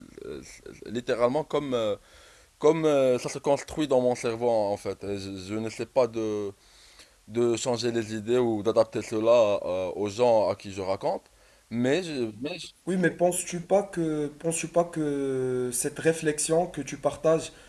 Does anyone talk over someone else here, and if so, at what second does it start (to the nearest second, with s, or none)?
none